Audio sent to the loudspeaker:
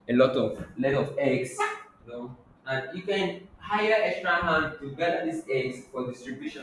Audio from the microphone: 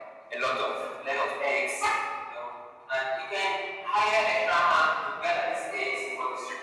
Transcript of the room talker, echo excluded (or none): none